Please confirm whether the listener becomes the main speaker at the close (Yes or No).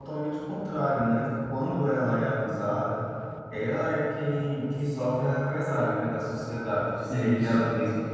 No